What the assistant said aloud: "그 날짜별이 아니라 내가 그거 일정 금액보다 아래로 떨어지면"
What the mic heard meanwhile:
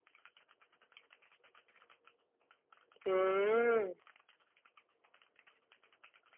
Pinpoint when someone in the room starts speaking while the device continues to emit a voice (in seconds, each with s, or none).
3.0 s